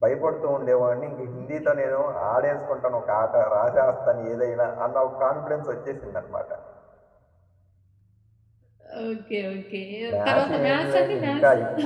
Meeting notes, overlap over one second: present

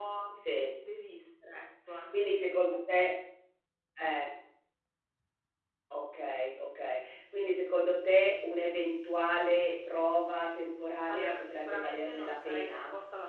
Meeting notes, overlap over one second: present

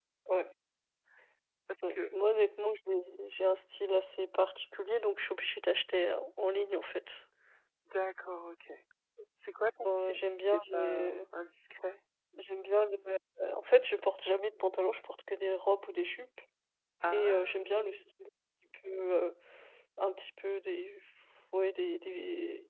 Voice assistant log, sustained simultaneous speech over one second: present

